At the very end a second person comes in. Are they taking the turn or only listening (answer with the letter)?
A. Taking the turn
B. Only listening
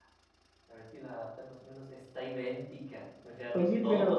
A